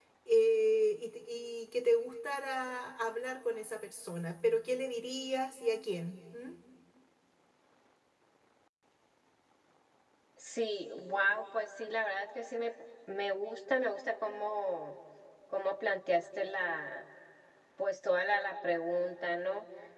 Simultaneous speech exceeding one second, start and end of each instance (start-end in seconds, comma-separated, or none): none